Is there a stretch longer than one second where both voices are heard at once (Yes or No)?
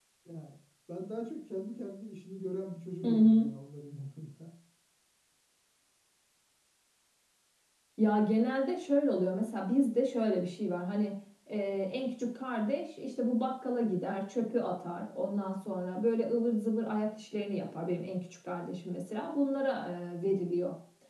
No